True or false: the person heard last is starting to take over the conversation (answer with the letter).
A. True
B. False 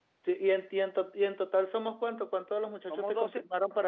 A